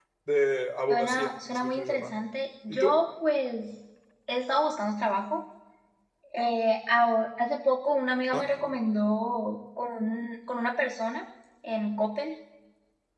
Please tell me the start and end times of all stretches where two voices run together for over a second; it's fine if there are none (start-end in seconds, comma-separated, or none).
0.9-2.1